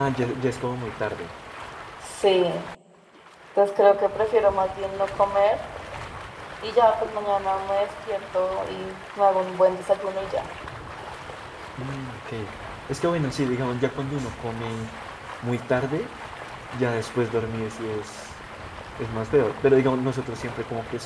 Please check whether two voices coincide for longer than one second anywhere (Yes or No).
No